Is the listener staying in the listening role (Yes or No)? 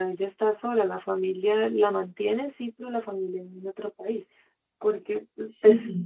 Yes